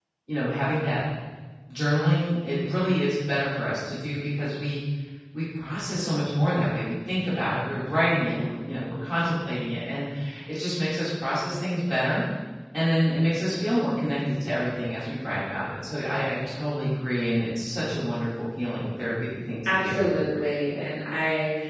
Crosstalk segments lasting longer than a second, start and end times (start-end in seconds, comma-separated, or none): none